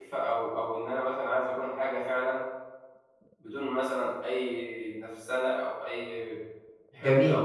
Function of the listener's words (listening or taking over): taking over